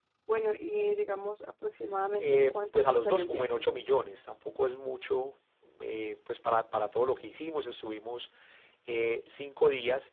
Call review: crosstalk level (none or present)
present